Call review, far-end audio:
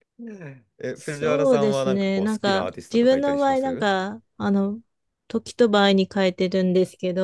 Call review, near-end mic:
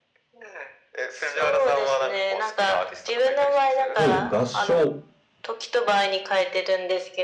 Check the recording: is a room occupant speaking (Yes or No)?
Yes